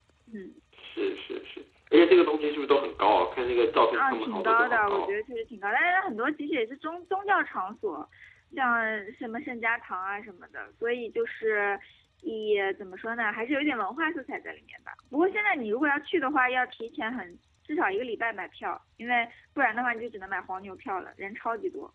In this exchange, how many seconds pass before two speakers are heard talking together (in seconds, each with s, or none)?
3.9 s